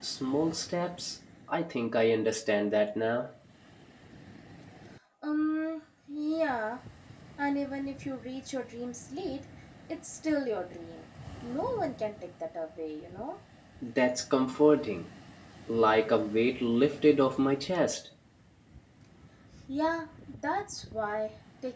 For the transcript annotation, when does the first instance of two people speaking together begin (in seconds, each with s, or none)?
none